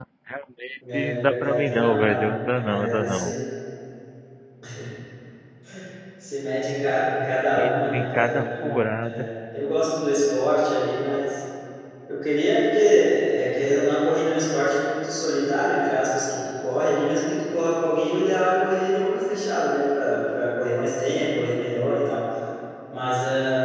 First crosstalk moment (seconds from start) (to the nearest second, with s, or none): 1 s